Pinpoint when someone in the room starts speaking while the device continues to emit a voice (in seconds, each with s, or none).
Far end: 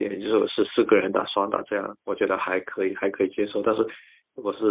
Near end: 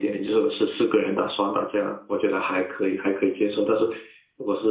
none